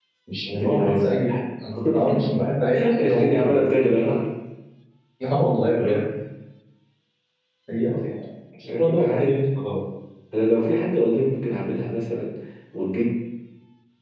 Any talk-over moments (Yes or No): Yes